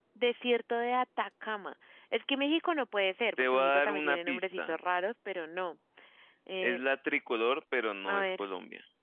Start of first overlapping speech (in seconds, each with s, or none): 3.4 s